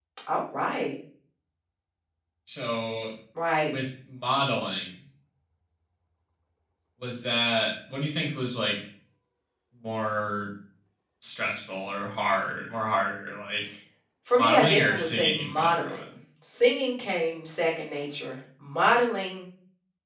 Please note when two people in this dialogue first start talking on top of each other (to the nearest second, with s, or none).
14 s